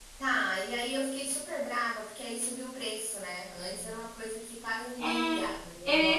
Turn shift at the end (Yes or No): Yes